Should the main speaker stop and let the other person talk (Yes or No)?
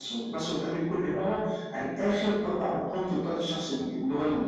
Yes